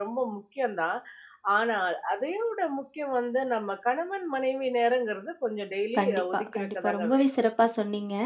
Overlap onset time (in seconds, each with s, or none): 6.0 s